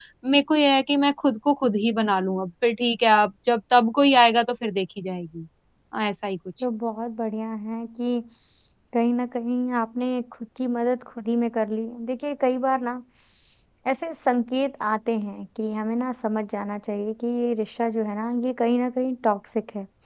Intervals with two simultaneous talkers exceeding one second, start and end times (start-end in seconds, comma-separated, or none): none